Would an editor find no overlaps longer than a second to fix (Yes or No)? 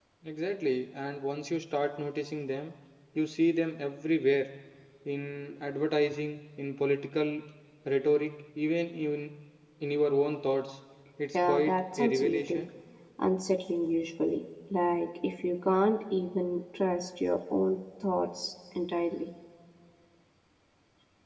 No